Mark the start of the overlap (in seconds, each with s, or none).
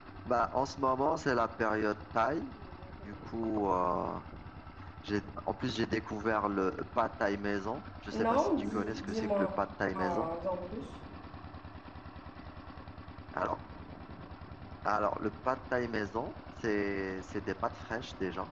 8.1 s